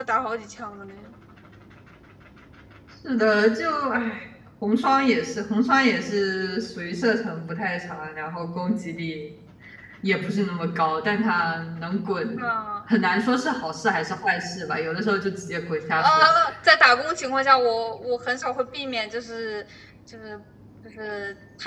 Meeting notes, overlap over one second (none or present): none